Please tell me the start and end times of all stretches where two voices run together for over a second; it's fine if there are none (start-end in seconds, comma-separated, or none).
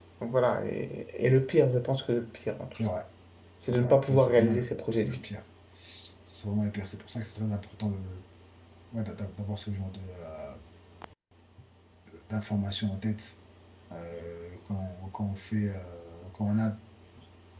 3.8-5.2